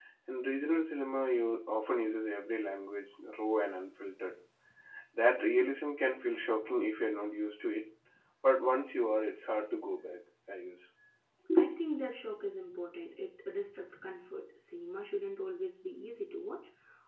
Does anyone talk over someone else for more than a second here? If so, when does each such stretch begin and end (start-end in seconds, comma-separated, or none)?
none